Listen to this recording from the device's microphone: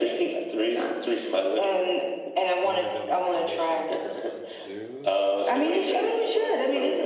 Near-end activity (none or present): present